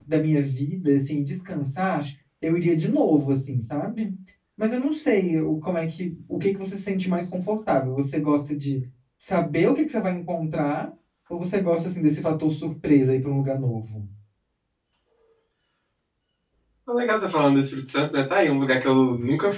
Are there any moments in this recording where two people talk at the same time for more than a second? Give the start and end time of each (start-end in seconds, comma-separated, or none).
none